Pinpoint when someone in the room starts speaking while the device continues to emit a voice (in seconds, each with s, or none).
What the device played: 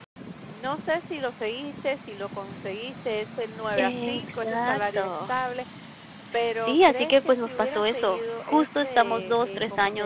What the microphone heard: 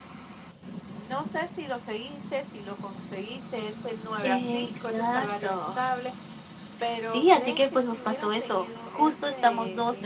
none